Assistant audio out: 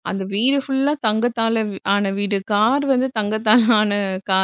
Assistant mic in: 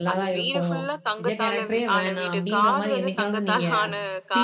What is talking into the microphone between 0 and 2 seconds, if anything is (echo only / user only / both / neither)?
both